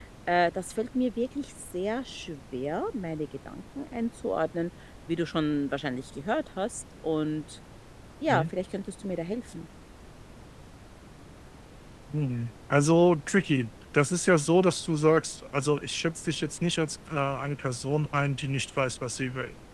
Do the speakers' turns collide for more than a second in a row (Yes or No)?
No